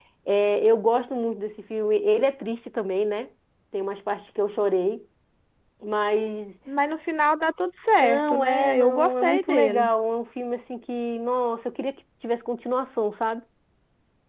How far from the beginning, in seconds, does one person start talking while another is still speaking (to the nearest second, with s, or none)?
8 s